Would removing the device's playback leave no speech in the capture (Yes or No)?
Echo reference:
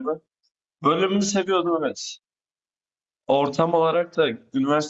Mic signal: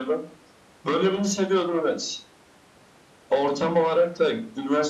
Yes